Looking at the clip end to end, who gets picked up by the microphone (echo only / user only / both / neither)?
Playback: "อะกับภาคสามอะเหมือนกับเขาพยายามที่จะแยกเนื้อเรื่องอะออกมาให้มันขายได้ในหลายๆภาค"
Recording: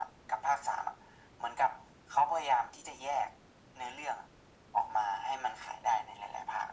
echo only